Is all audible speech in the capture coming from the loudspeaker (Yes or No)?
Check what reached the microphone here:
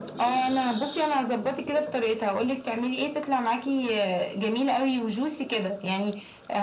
Yes